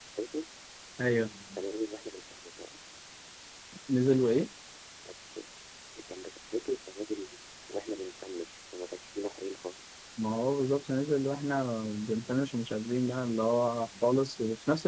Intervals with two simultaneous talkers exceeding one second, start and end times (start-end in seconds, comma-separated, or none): none